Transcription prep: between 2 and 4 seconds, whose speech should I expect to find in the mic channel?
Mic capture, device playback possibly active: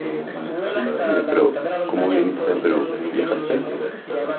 both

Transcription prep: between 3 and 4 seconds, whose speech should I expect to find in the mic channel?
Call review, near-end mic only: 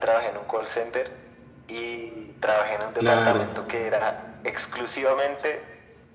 both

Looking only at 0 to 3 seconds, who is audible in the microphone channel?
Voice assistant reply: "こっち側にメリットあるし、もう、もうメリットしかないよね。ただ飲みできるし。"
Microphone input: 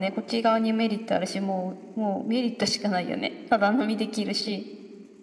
echo only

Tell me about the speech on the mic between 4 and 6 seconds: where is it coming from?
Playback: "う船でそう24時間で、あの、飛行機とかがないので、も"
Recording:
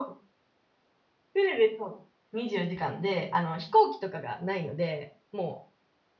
echo only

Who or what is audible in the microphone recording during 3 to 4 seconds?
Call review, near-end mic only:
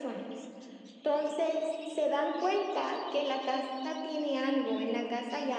echo only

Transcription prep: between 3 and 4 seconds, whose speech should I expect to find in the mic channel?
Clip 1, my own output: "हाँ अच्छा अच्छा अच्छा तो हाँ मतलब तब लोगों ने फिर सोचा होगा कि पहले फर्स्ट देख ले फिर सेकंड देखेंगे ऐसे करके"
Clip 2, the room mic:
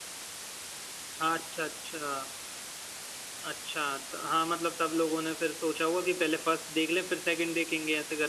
echo only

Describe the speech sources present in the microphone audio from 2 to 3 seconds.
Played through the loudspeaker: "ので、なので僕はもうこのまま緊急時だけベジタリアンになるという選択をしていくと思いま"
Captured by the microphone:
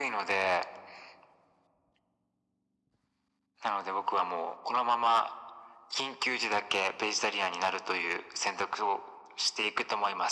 neither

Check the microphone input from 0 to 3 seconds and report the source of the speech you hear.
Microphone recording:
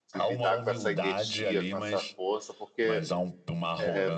both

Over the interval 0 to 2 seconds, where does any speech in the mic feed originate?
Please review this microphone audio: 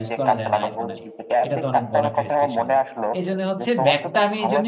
both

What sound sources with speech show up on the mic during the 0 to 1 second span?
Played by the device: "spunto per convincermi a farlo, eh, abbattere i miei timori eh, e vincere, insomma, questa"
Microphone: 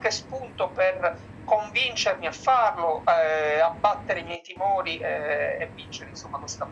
echo only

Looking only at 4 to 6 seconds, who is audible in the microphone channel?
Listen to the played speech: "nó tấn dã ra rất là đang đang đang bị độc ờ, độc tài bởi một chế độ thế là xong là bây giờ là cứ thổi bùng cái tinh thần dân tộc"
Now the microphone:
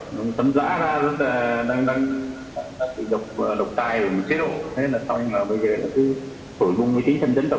echo only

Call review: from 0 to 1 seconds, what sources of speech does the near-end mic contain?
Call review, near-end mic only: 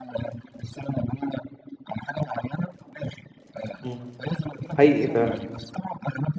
echo only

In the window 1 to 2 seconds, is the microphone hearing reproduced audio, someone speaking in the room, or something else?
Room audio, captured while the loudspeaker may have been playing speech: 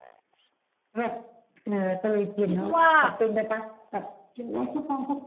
echo only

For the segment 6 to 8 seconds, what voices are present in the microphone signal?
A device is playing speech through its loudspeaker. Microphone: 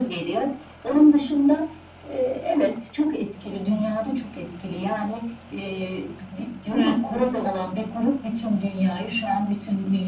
both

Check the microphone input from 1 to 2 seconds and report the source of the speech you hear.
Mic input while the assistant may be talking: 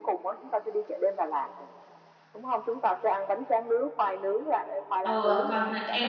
echo only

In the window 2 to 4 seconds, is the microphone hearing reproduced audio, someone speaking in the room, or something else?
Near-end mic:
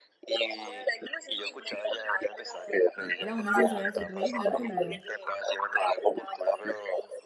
both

